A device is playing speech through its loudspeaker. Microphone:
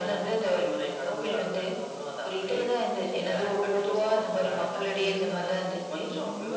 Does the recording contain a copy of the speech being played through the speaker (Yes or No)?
Yes